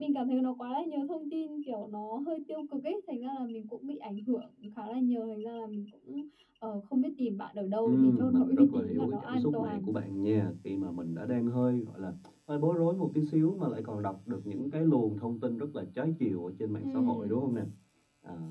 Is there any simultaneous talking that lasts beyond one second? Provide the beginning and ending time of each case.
7.8-9.9

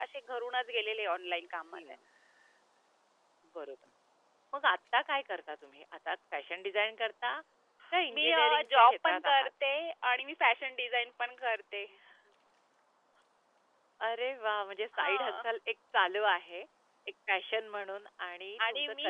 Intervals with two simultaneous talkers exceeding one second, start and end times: 8.1-9.5

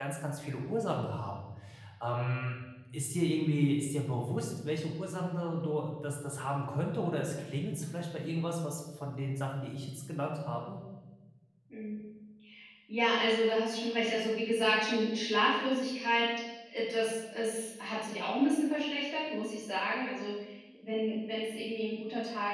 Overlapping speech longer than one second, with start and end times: none

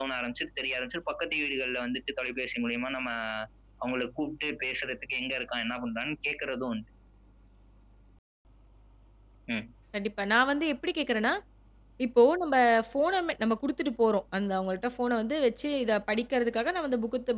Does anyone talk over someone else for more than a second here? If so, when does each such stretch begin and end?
none

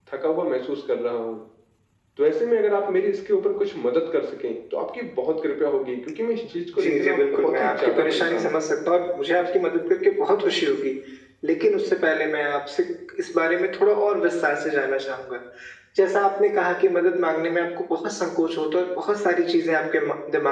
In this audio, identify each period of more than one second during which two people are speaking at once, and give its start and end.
6.5-8.6

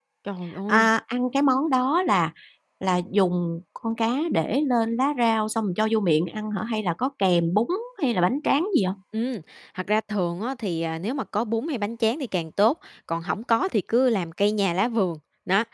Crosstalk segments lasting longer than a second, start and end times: none

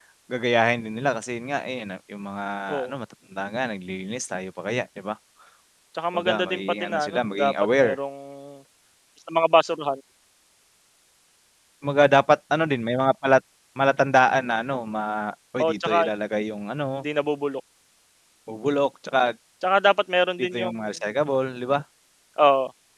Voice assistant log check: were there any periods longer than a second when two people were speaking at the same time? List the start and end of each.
6.1-8.0

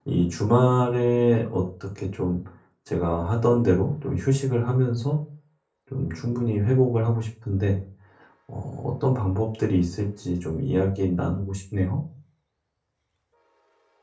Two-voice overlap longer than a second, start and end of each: none

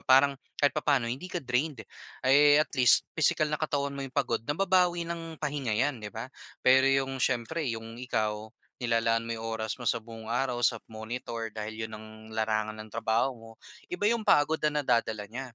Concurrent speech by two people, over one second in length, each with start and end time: none

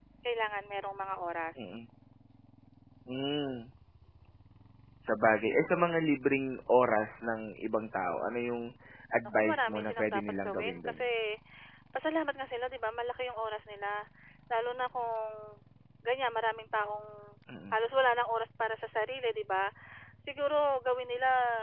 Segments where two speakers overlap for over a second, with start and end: 9.2-11.0

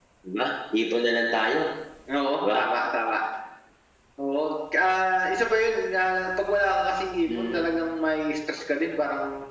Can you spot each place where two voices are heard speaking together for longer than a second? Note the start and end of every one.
none

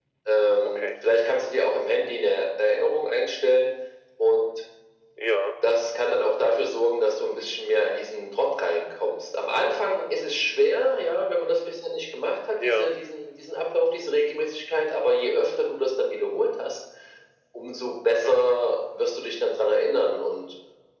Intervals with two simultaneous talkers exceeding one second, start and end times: none

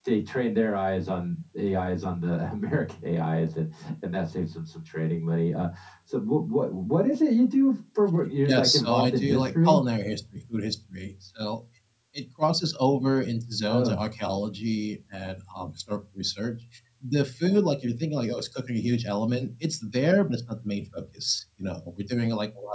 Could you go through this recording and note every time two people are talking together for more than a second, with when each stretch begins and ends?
8.4-9.8

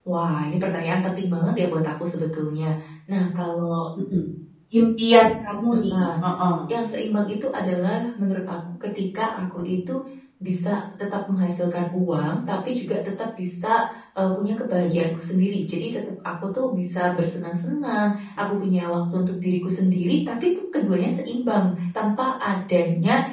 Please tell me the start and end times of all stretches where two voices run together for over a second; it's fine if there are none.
none

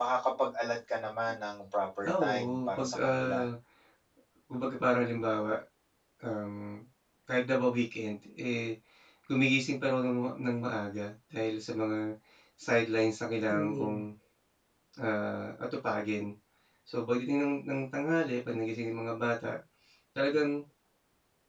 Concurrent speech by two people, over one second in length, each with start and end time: 2.1-3.4

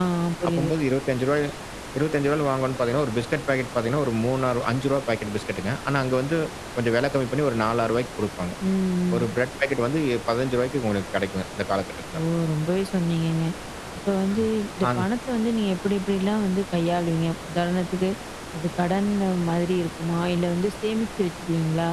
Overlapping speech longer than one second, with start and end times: none

